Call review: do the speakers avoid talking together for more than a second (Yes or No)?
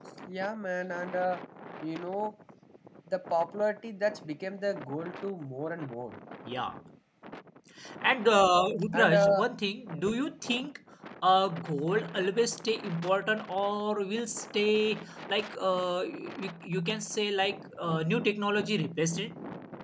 Yes